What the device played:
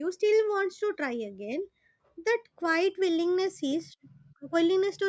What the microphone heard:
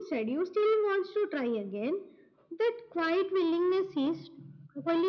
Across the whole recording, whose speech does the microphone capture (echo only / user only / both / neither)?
echo only